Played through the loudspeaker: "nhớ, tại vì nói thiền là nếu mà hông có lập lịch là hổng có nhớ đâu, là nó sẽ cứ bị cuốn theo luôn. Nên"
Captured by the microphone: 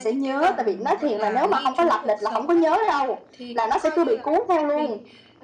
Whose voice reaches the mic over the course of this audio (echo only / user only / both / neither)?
both